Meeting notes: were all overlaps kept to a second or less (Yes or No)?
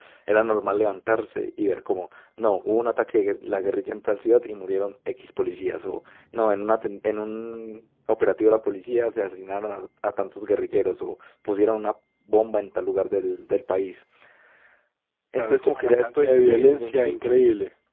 No